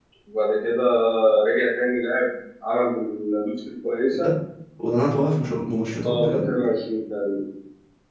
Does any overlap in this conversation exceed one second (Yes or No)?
No